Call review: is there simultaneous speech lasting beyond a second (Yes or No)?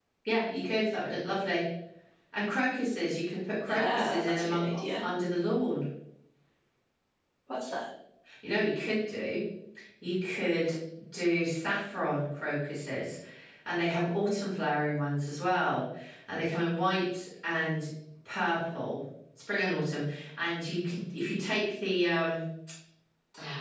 Yes